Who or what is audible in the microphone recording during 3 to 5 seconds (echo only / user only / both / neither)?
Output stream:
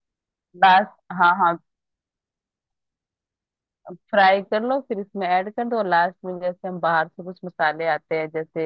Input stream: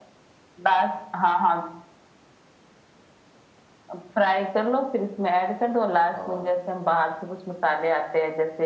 echo only